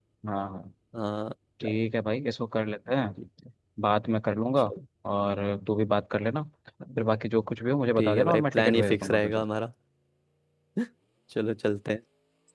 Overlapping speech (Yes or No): Yes